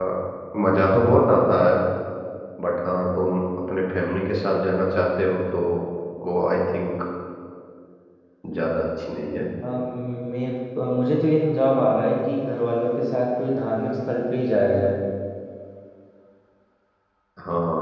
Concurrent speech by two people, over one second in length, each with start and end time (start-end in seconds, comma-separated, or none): none